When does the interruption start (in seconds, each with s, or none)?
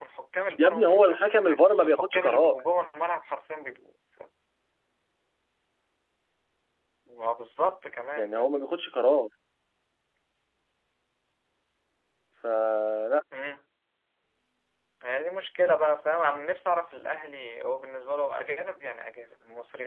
0.6 s